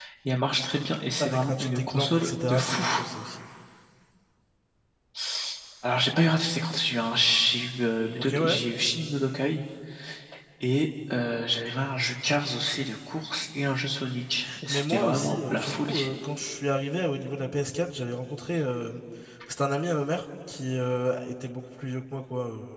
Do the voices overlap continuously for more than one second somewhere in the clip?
Yes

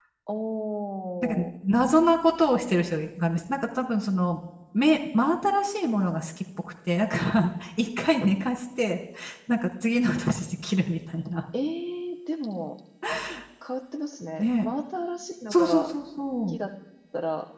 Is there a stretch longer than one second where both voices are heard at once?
No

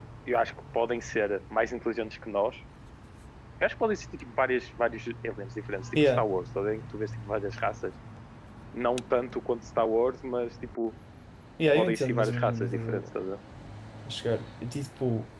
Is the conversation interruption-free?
No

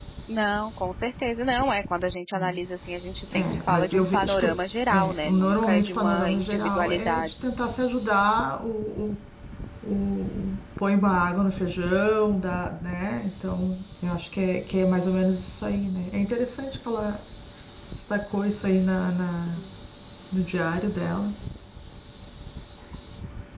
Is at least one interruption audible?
Yes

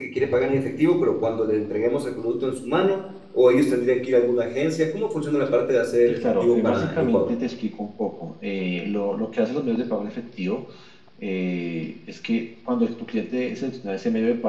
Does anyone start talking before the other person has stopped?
Yes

